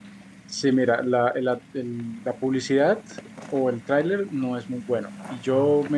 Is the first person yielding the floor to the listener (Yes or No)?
No